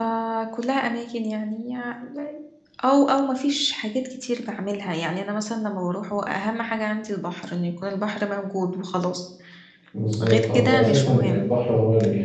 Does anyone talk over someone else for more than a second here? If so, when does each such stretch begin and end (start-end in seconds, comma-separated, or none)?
10.2-11.5